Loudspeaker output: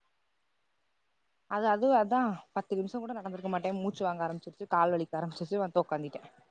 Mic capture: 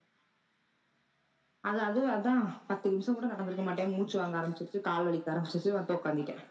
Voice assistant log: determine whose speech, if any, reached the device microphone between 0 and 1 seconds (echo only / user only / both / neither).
neither